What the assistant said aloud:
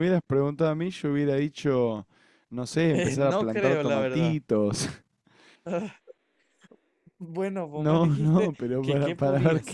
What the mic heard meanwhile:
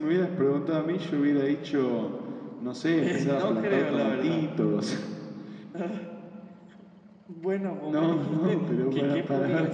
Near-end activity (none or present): none